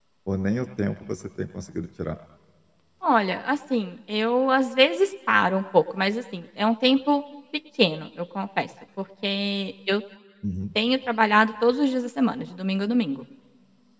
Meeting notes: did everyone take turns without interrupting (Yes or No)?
Yes